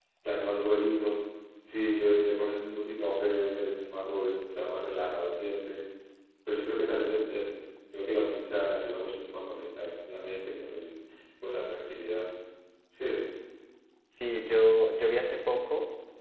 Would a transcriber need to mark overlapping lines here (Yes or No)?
No